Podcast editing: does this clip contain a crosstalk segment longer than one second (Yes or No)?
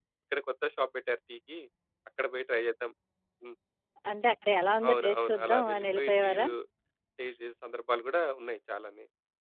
Yes